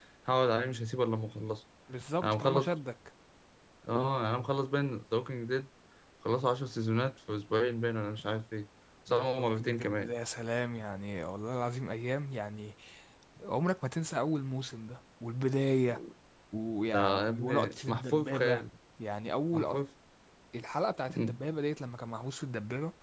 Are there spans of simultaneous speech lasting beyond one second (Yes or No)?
Yes